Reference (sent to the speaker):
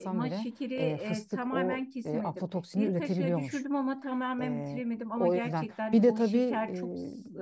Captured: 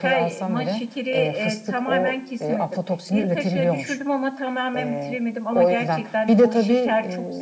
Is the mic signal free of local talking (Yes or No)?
Yes